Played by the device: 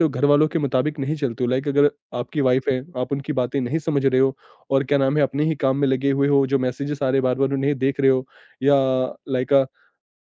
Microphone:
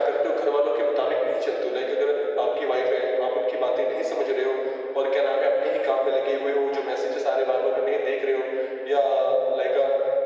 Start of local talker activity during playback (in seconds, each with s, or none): none